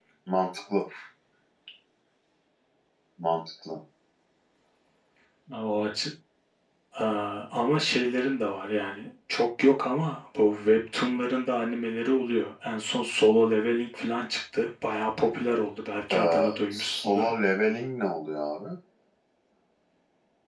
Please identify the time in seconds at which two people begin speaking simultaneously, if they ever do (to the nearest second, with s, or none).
16 s